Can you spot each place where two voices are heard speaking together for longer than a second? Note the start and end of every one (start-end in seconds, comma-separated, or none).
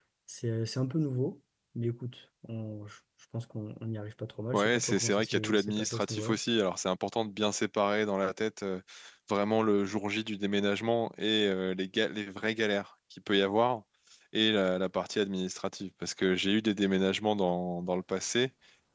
4.5-6.4